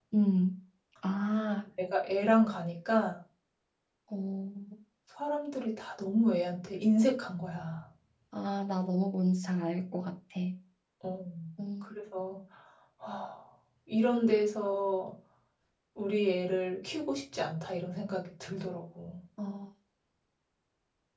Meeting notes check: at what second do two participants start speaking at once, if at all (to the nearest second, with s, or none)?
none